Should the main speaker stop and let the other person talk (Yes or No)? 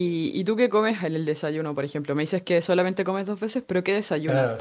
Yes